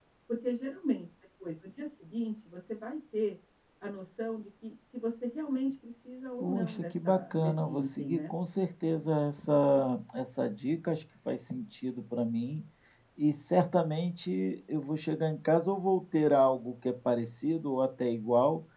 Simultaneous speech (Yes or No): Yes